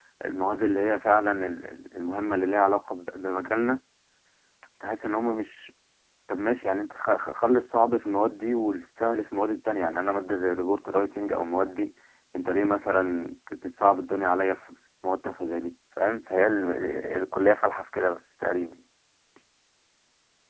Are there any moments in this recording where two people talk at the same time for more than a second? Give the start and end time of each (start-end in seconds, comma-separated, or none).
none